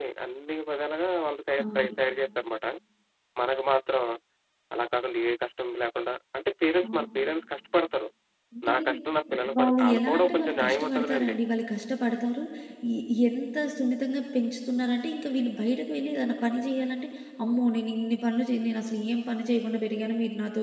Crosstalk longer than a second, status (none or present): present